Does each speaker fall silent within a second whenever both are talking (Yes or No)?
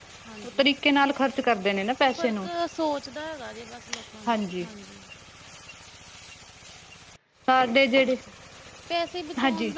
Yes